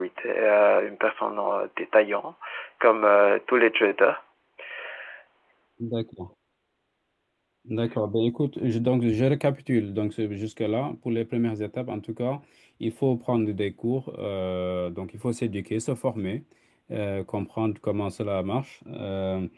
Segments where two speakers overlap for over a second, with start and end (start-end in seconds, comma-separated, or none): none